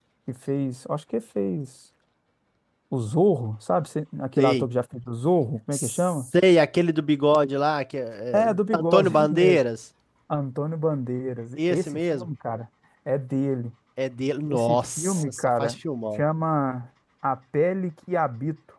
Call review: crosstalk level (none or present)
present